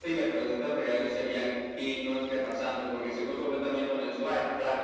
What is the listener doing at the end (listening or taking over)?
listening